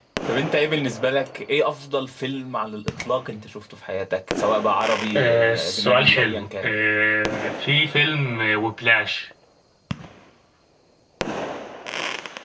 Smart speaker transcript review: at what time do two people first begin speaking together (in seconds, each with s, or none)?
5.1 s